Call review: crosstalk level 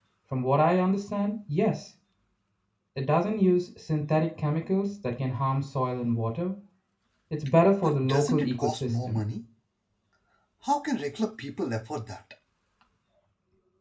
present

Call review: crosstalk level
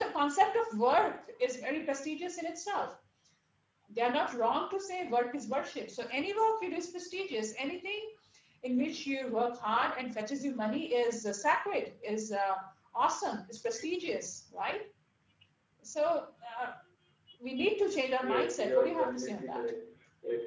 present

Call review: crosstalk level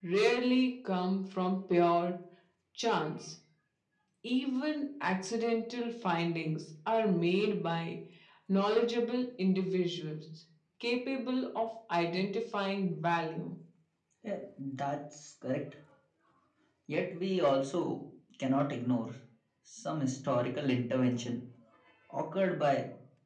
none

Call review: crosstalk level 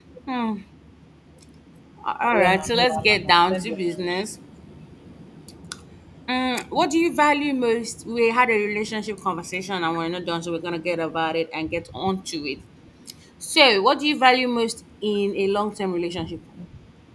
present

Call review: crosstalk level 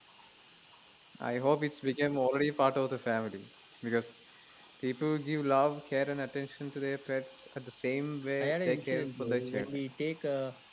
present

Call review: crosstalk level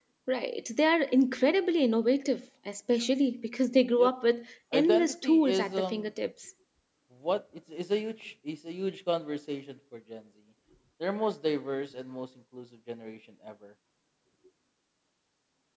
present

